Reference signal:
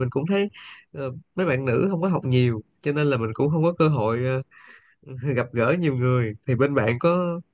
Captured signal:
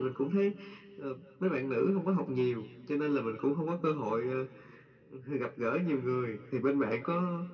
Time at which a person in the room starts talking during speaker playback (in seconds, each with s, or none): none